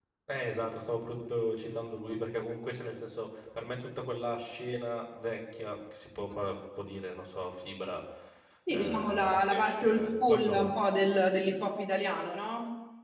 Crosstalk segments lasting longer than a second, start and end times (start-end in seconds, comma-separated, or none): 8.7-10.7